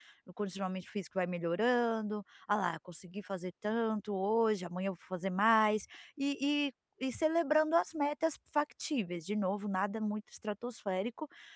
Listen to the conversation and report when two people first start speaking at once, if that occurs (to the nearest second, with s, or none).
none